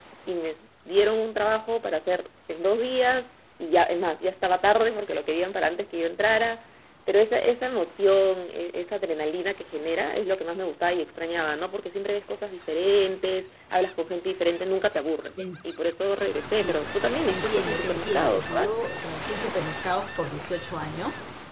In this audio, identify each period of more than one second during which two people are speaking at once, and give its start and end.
17.3-18.7

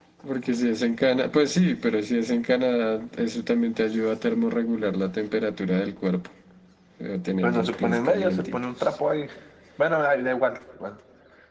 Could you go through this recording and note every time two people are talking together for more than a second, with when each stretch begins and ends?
7.4-9.0

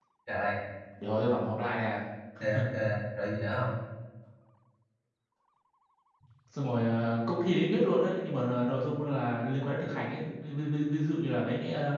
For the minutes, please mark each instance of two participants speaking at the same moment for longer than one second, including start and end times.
none

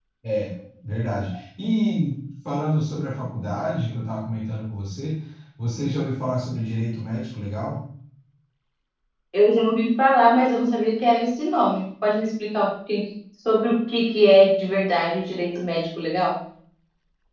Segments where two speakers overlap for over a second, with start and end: none

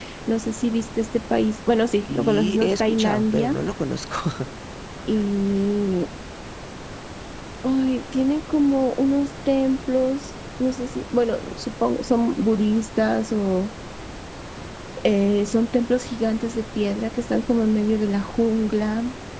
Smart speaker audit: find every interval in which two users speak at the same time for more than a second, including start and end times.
2.1-3.6

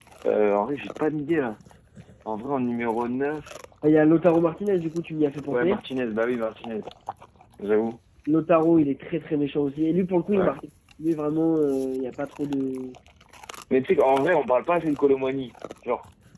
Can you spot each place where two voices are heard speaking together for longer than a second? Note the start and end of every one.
none

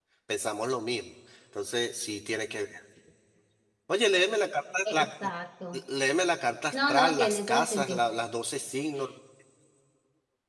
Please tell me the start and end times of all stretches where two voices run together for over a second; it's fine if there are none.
6.7-8.0

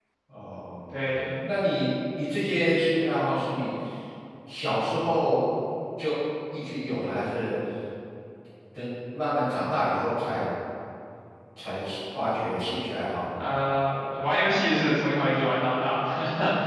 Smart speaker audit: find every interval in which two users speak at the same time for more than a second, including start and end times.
none

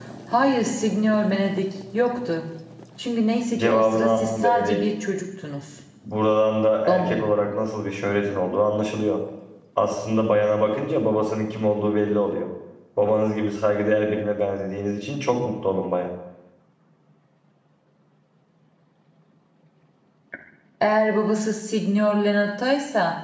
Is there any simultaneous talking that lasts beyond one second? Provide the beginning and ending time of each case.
3.6-4.8

